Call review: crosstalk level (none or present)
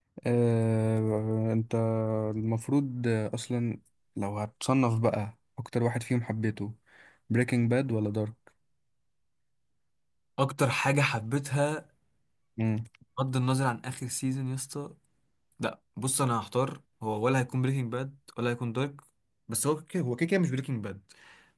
none